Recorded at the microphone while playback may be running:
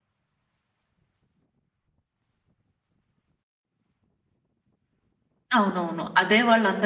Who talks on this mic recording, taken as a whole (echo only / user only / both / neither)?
user only